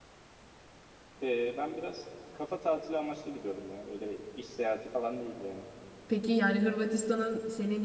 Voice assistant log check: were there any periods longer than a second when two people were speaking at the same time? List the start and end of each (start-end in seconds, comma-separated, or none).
none